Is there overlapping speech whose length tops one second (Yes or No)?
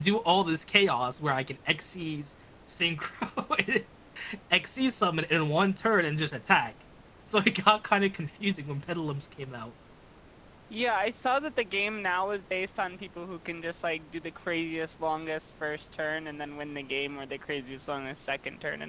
No